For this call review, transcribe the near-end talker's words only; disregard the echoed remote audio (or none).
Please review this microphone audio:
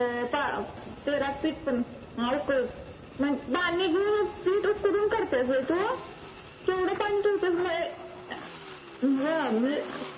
none